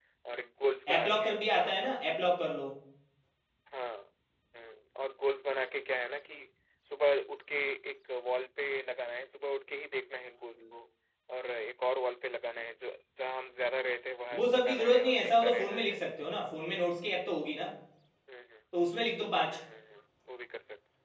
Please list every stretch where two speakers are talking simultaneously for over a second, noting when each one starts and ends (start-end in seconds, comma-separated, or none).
0.9-2.2, 14.3-16.0